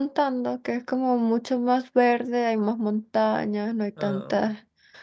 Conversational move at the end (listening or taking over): listening